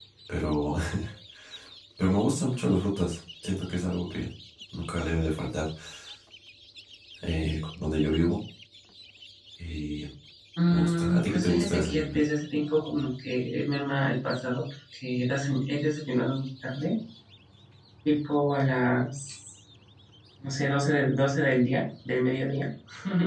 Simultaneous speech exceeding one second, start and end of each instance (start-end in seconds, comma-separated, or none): 10.7-12.2